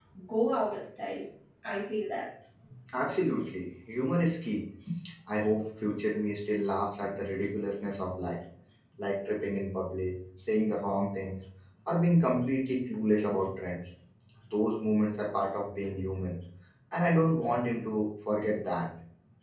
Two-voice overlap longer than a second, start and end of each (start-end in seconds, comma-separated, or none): none